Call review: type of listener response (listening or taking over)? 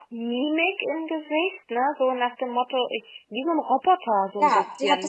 taking over